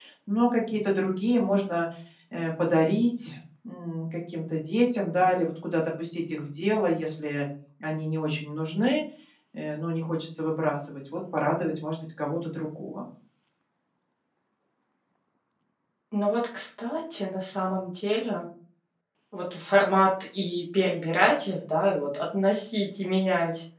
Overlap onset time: none

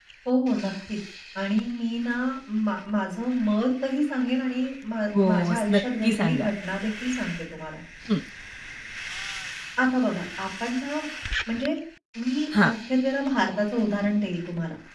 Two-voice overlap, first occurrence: 5.1 s

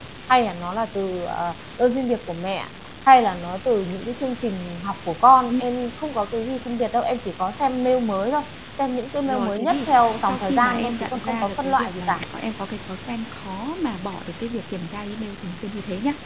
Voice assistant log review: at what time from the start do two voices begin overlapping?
9.3 s

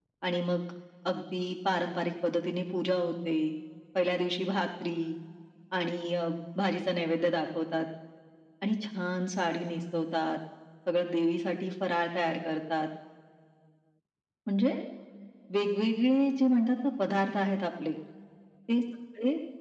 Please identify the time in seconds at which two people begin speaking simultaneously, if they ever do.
none

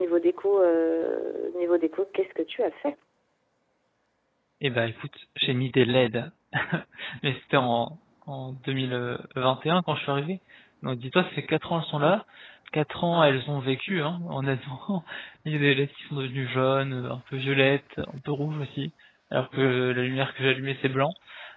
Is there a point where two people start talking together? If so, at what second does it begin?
none

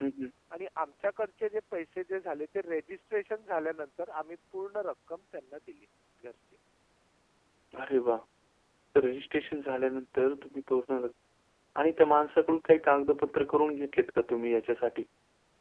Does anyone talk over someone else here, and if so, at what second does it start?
none

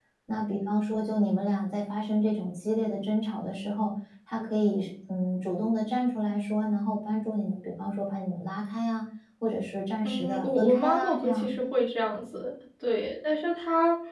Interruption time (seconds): 10.0 s

